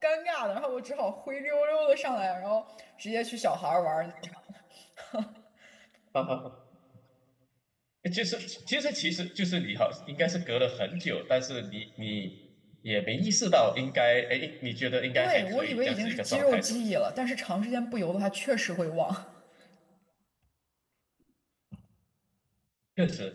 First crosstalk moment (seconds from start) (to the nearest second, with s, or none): 15 s